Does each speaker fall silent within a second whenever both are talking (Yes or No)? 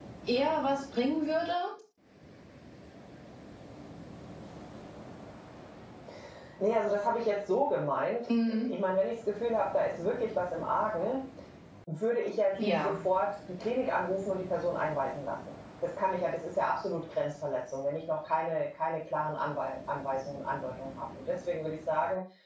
Yes